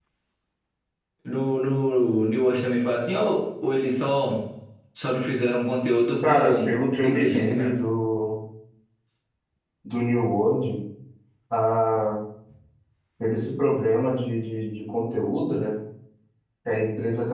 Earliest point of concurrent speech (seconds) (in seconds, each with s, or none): 6.2 s